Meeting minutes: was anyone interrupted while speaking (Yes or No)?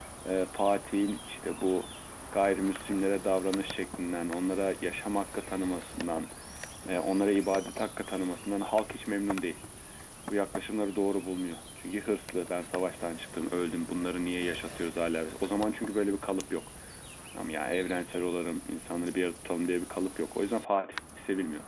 No